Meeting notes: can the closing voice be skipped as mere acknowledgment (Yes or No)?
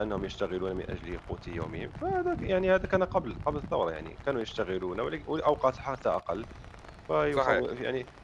Yes